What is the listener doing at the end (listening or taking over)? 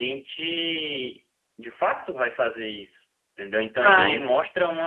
listening